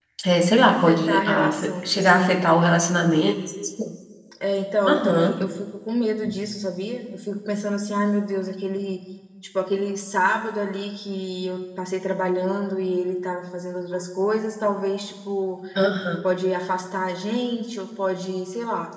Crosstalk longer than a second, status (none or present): present